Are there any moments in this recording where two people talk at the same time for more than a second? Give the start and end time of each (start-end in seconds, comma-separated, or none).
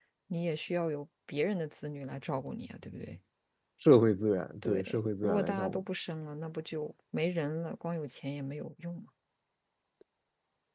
4.6-5.8